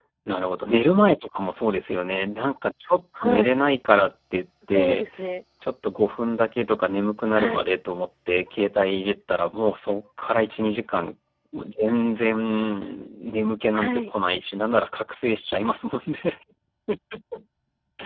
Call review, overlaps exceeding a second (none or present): none